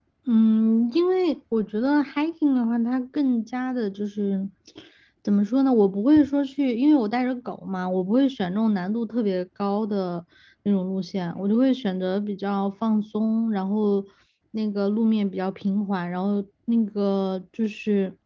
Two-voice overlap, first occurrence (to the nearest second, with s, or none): none